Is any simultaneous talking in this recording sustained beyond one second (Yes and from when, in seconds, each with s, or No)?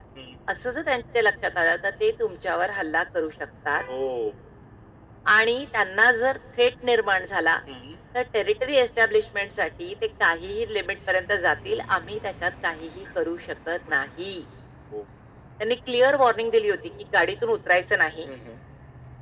No